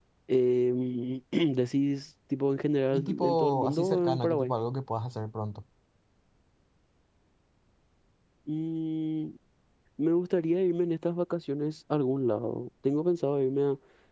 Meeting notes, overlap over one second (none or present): present